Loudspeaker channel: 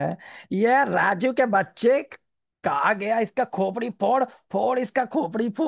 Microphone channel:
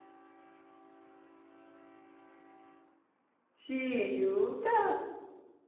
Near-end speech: present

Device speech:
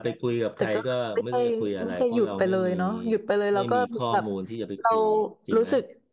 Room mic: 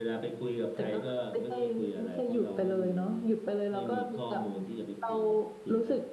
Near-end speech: none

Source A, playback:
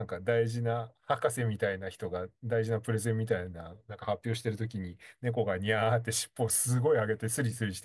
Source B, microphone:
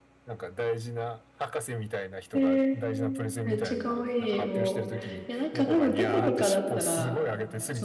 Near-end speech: present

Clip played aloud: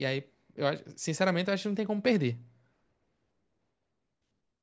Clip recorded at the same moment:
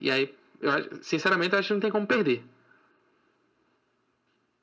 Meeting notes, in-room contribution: none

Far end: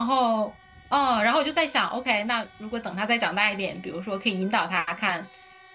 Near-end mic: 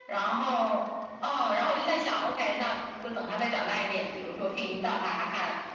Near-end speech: none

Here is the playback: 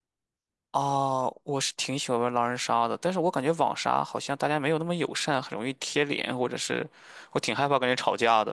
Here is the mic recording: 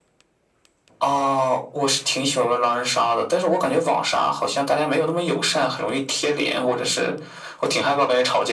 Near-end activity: none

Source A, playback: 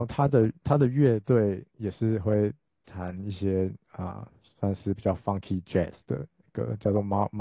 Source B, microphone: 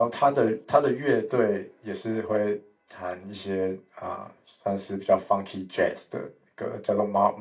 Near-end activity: none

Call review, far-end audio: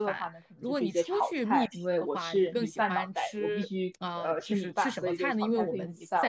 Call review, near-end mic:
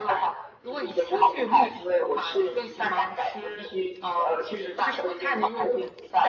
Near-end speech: none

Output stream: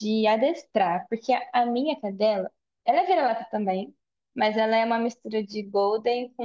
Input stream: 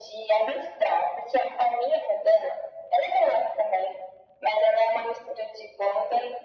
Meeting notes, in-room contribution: none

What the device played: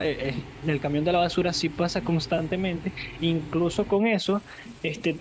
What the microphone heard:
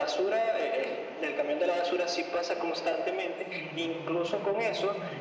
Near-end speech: present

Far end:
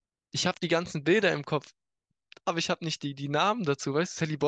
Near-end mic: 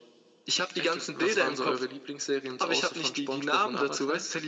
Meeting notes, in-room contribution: present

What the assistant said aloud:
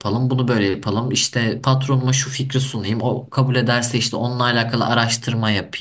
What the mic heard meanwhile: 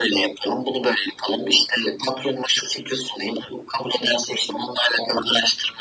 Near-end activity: none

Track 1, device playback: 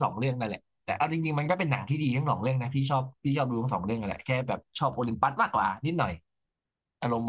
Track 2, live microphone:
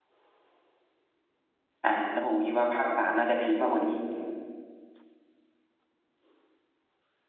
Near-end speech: present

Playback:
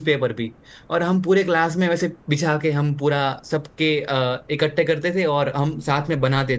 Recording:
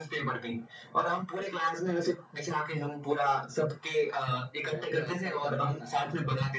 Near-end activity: present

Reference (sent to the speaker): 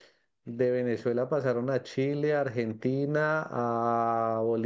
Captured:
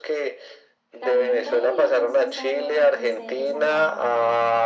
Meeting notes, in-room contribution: present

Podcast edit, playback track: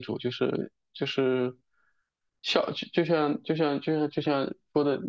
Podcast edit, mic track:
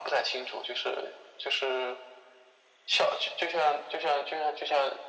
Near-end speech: none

